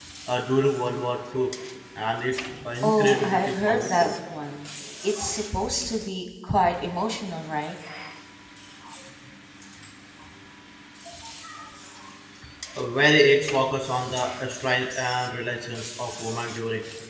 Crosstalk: present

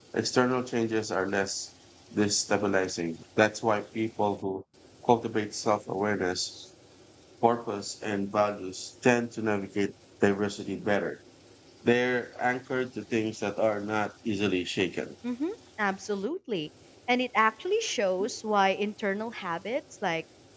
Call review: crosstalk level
none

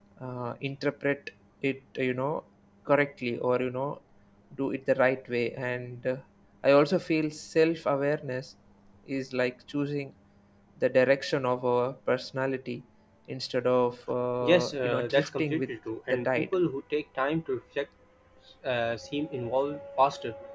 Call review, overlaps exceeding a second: present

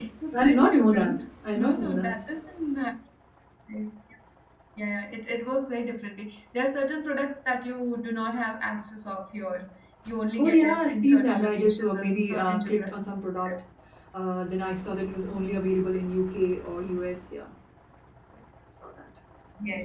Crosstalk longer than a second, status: present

